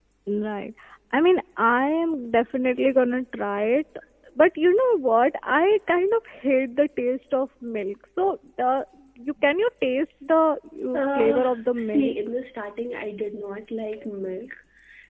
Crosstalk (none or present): present